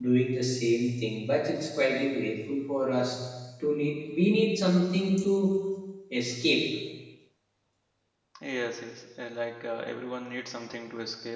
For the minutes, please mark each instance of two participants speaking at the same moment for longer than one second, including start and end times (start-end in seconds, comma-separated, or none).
none